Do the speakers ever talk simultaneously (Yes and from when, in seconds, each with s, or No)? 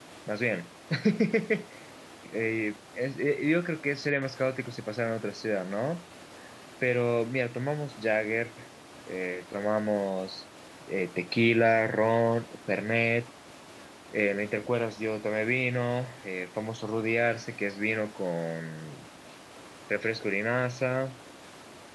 No